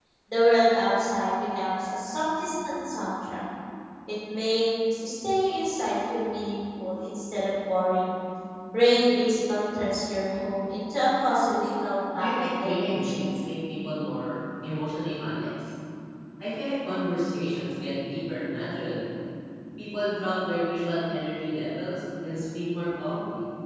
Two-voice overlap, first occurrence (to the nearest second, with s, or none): 12 s